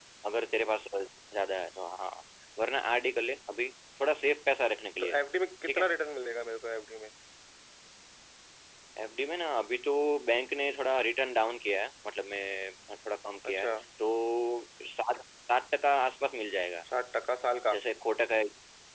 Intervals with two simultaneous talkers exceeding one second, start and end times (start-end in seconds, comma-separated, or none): none